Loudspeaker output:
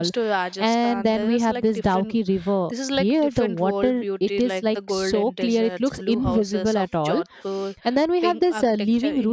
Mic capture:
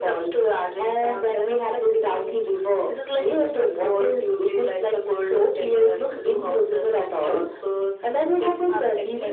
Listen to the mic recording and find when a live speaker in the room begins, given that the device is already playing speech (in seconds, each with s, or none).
none